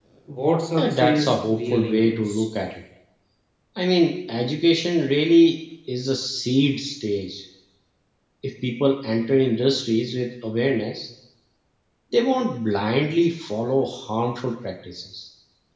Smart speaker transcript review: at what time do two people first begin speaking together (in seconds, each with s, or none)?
0.8 s